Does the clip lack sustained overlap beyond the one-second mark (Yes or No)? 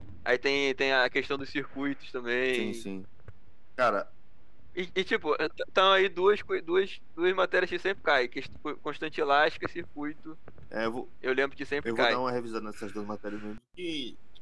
Yes